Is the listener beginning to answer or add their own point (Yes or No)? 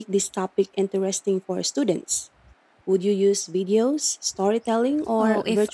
Yes